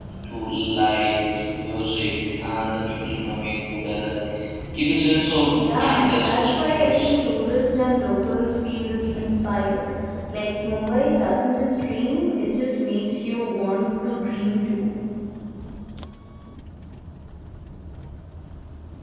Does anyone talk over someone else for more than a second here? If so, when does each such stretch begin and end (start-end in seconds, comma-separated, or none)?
5.6-7.1